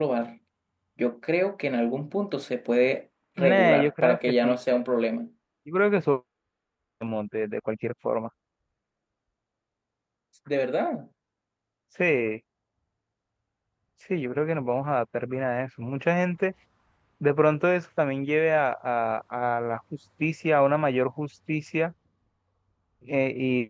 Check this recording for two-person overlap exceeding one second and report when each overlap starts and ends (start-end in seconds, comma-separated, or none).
3.4-4.6